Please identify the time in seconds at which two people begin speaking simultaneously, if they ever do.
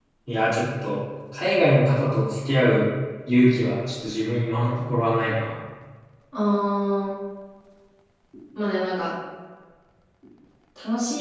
none

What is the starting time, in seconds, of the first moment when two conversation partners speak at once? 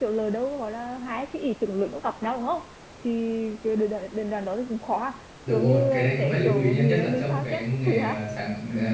5 s

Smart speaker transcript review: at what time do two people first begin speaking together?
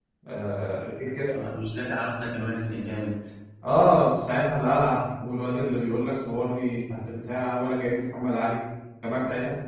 none

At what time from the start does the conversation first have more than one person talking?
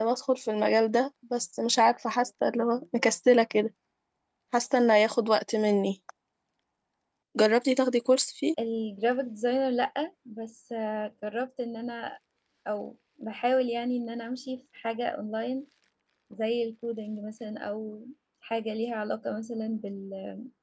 none

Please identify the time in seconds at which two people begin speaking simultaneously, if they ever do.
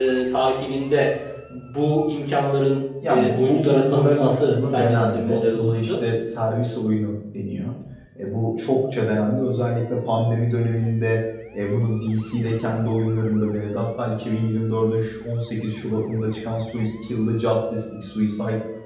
3 s

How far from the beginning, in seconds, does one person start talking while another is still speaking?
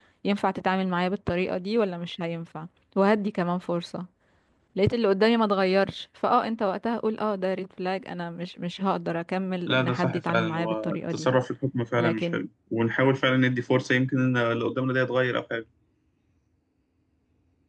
10 s

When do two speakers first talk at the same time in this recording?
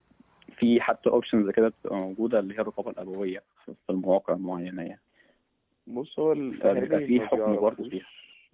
7 s

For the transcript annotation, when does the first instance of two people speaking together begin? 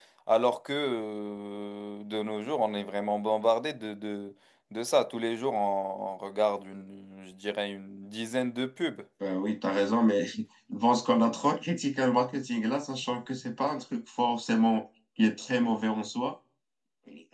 none

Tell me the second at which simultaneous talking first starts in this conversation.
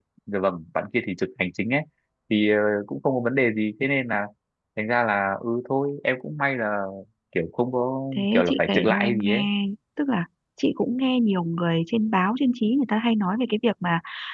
8 s

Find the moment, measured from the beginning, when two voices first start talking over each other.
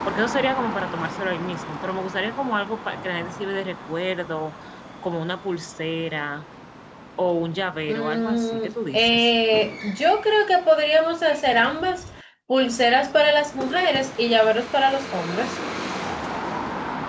8 s

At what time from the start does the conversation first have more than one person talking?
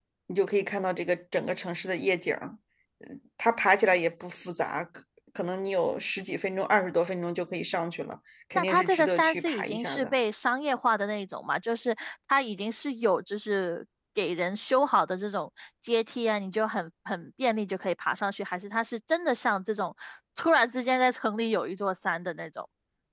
9 s

